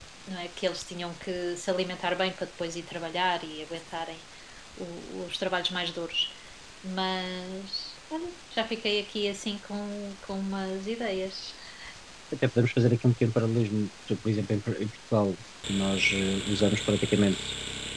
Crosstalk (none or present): none